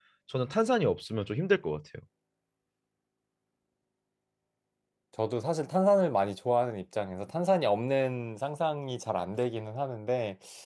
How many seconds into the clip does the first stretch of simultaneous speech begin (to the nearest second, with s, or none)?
none